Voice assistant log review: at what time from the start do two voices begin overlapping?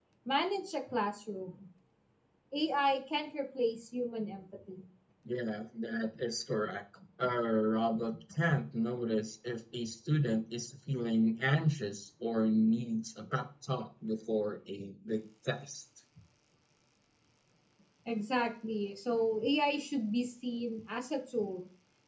none

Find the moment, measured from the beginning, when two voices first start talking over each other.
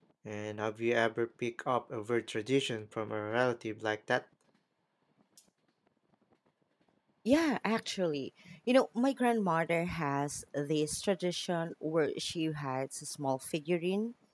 none

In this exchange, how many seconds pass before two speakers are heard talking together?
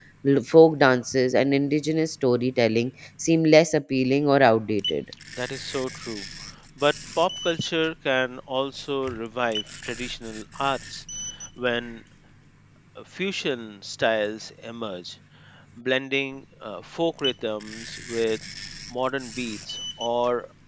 none

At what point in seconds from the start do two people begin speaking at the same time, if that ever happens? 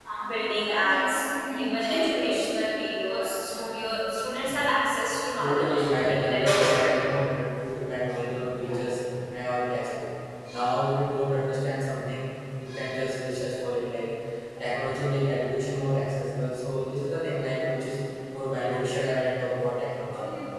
5 s

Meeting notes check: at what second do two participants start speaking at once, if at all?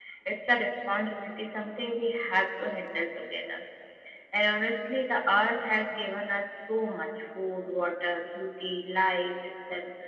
none

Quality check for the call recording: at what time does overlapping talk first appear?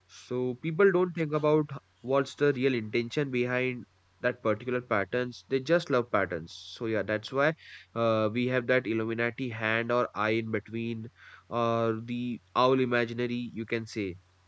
none

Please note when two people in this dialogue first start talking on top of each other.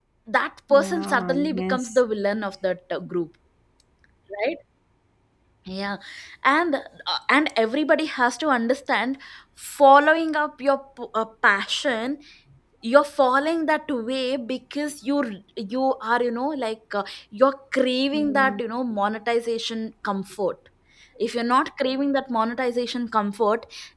1 s

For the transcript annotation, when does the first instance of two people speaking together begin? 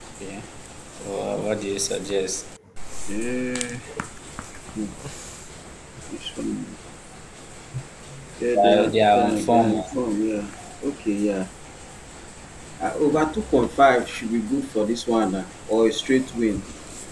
9 s

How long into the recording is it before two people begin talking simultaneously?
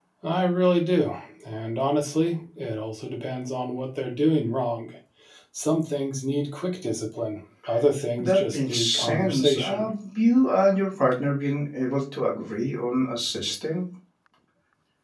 8 s

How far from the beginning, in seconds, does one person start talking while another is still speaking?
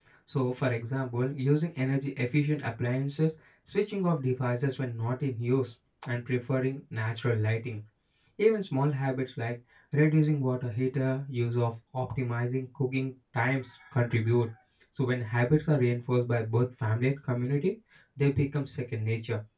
none

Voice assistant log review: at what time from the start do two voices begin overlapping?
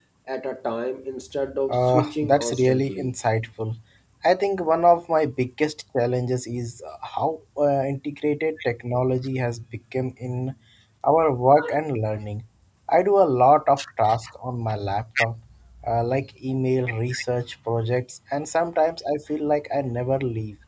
2 s

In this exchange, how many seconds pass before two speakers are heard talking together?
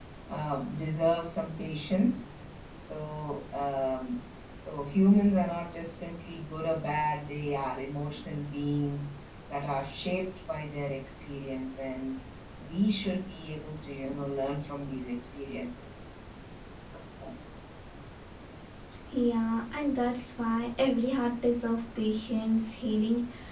none

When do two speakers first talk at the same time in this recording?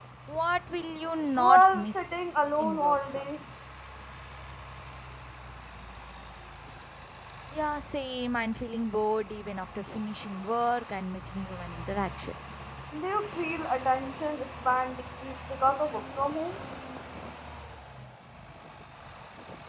1 s

